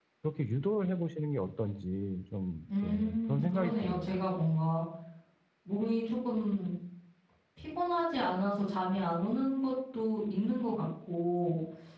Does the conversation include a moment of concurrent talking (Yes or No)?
Yes